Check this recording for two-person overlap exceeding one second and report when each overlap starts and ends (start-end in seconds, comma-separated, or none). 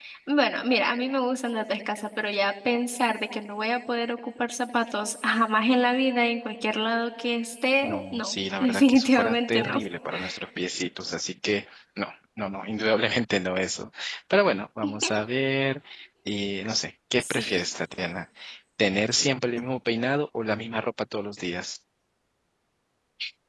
7.8-9.8